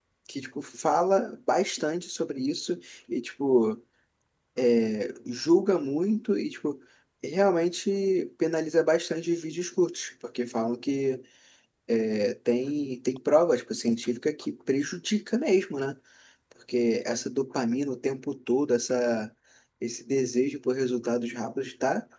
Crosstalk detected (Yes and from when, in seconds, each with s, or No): No